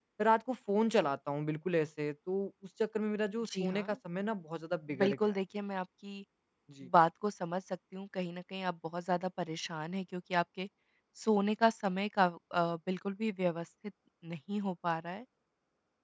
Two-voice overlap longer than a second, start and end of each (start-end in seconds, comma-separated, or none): none